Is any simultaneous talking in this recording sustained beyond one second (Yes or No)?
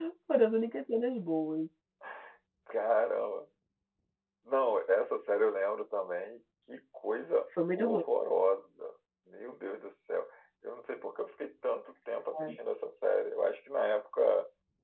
No